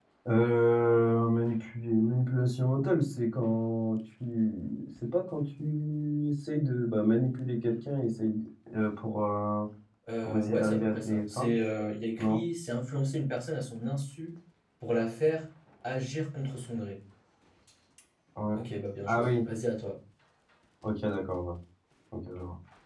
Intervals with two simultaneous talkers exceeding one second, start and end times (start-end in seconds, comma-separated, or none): 10.2-11.5